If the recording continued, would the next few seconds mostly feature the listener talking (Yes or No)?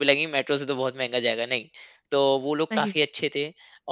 No